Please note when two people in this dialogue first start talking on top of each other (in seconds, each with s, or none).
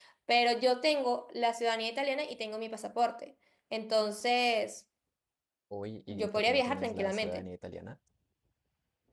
6.1 s